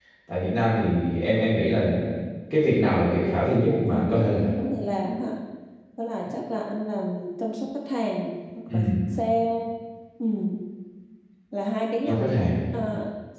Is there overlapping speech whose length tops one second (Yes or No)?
Yes